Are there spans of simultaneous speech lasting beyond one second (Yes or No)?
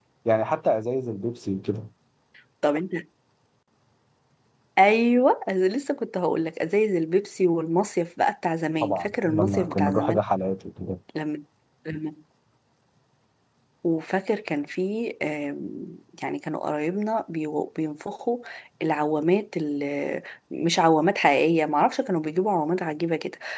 Yes